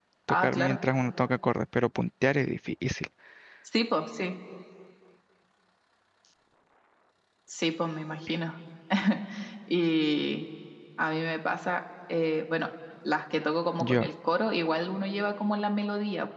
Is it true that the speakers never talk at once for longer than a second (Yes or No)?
Yes